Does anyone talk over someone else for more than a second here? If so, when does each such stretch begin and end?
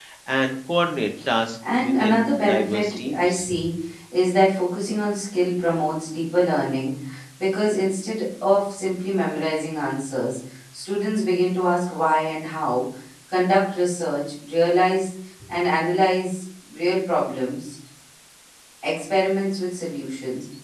1.8-3.5

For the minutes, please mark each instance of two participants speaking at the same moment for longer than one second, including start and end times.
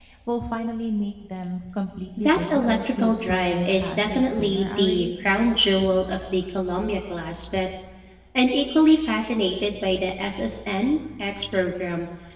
2.2-5.2

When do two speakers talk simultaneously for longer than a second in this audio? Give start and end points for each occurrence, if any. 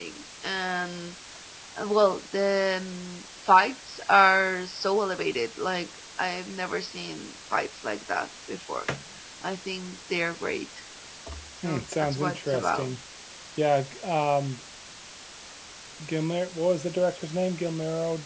11.6-12.9

